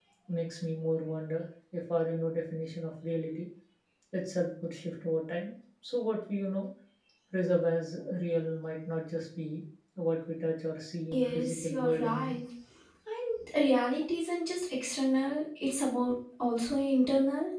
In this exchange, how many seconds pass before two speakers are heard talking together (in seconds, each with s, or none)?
11.1 s